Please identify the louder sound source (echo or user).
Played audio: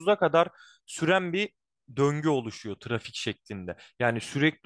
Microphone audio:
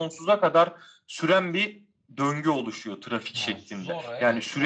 echo